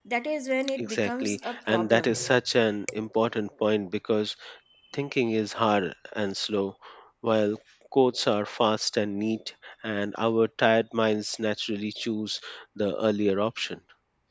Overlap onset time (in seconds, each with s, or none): 0.8 s